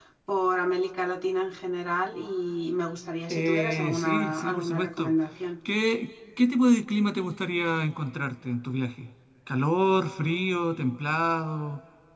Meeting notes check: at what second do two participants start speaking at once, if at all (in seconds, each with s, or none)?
3.3 s